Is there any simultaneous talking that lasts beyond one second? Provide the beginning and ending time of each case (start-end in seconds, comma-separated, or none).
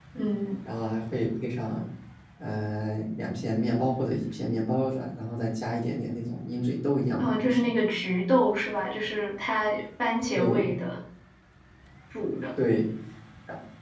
none